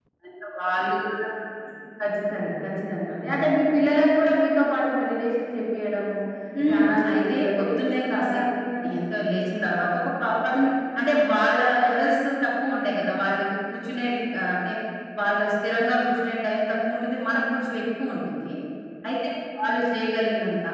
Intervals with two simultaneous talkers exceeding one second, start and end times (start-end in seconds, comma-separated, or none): 6.7-8.4